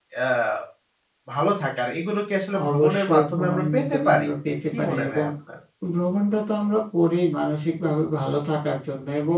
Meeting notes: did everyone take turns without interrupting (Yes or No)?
No